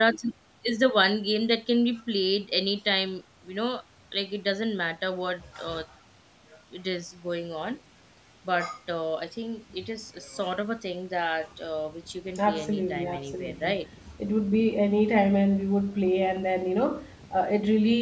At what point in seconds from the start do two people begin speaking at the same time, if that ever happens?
12.3 s

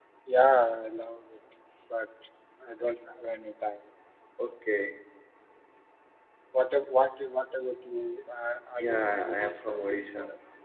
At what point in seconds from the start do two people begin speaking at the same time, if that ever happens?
8.8 s

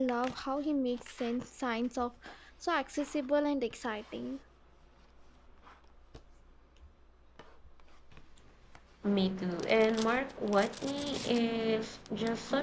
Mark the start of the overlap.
none

